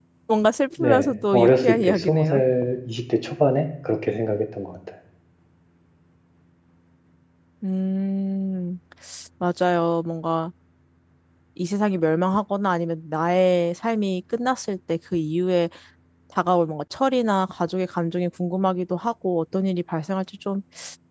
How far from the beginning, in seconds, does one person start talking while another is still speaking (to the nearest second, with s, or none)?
1 s